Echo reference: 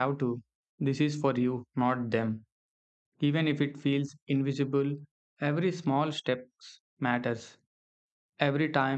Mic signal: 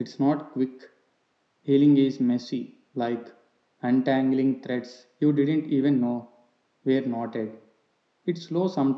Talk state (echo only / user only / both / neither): user only